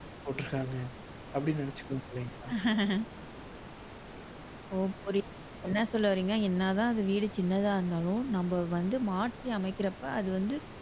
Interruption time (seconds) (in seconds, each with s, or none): none